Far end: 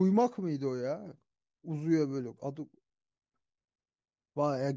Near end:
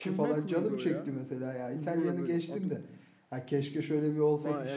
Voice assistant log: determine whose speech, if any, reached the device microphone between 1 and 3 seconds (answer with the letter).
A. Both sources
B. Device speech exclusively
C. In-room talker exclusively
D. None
A